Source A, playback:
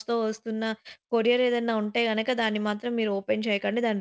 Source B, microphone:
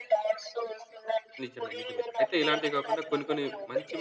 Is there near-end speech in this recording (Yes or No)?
Yes